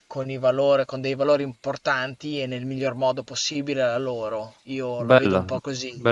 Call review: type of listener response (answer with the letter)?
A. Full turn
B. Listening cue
A